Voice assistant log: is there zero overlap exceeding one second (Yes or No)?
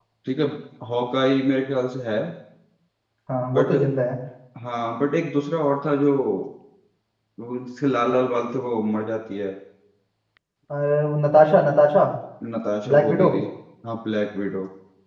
Yes